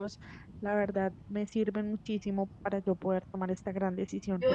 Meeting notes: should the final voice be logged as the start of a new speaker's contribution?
Yes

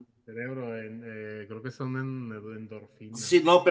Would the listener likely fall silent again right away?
No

